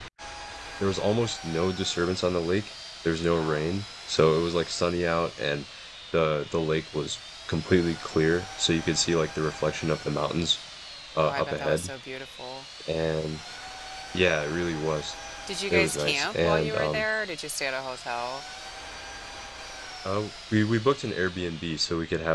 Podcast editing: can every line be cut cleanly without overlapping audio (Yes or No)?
No